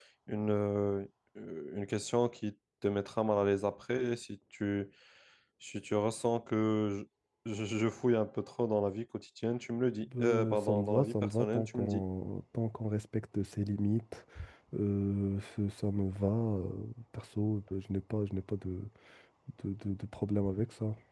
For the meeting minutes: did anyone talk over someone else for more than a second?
Yes, from 10.1 s

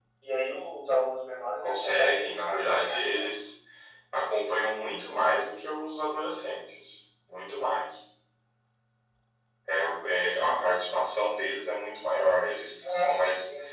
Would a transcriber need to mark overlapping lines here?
Yes, from 1.6 s

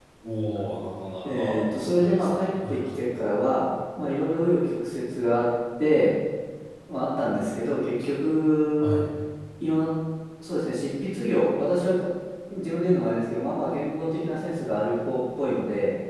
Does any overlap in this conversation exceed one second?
Yes, from 1.2 s

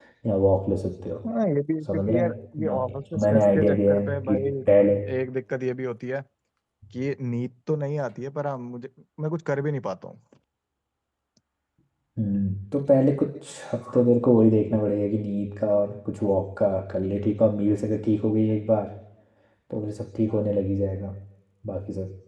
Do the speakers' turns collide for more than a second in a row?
Yes, from 1.9 s

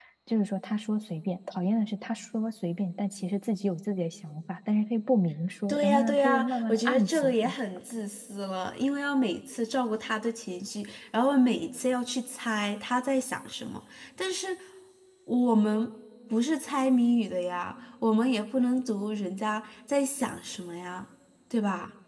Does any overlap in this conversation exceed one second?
Yes, from 5.7 s

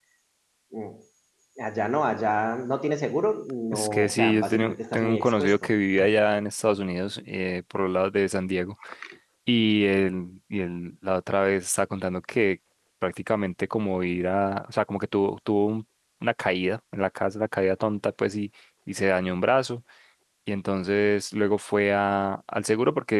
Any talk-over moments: Yes, from 3.7 s

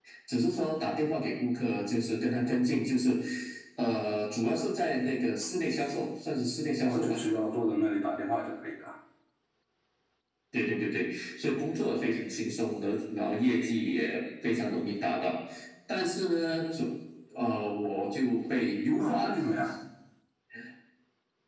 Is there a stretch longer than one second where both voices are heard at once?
No

